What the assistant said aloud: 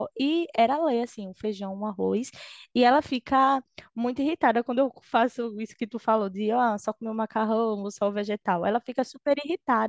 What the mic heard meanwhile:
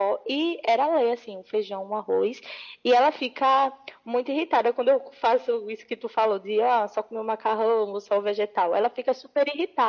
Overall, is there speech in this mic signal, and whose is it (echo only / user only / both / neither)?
echo only